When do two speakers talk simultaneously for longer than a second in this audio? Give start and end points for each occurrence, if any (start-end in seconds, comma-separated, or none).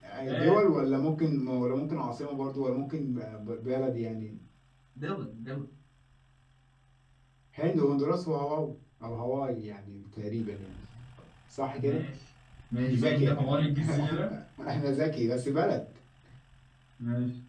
12.9-14.2